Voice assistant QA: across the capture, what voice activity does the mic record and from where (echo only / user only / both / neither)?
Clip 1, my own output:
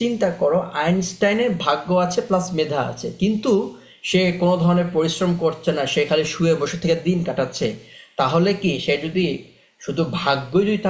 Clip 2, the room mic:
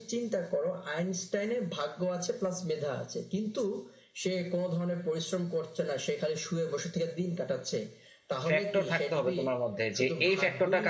both